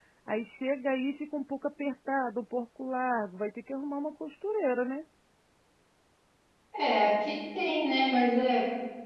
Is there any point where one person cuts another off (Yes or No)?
No